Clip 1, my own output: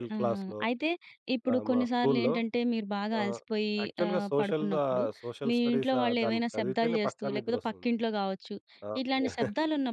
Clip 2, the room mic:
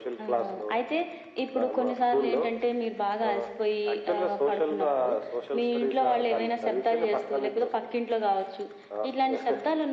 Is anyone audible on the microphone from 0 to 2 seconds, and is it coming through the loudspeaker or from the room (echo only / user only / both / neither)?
echo only